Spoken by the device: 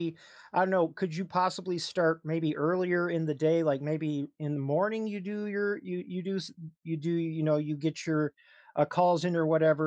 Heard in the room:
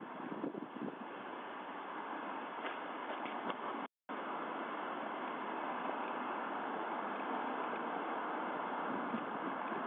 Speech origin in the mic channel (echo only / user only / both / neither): neither